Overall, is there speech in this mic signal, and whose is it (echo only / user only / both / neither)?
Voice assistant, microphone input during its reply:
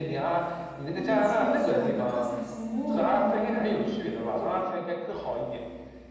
both